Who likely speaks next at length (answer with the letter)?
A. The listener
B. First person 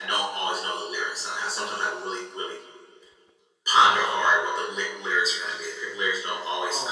B